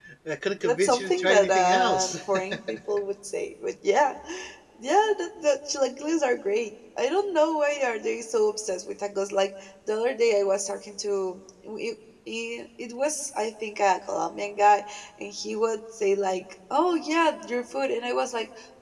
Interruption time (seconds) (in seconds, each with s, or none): 0.6 s